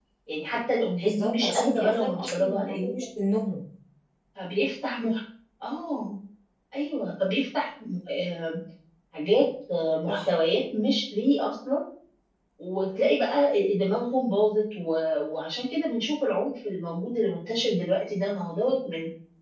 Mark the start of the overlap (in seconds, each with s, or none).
1.0 s